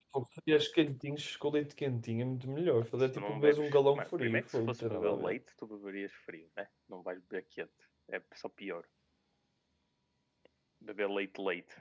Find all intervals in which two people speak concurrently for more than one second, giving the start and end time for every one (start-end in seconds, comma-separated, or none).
3.0-5.3